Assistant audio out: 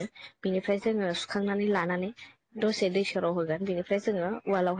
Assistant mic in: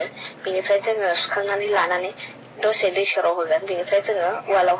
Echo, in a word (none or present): present